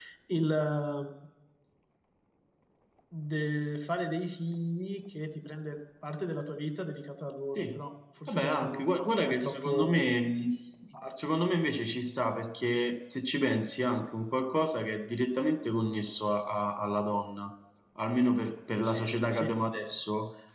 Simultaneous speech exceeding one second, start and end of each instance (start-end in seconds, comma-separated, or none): 8.3-10.1